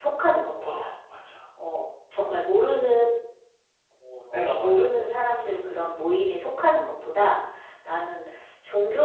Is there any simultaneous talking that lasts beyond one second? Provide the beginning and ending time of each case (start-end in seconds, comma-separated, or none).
4.3-5.5